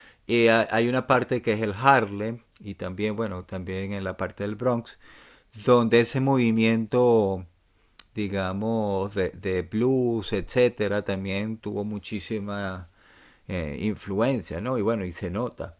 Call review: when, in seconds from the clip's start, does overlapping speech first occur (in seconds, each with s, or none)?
none